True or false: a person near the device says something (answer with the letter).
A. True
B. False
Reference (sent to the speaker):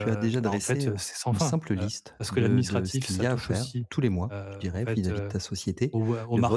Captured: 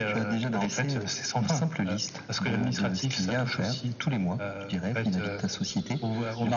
B